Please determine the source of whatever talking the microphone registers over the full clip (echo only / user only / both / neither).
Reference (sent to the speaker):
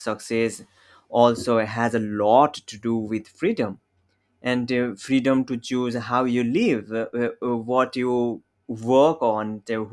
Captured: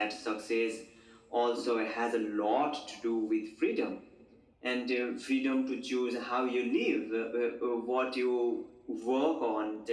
echo only